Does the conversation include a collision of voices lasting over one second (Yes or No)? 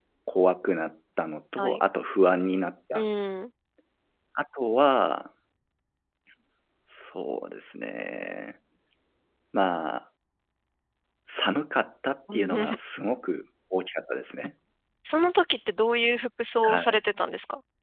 No